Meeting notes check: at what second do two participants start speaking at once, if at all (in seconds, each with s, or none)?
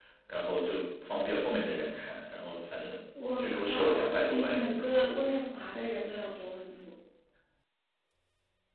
3.4 s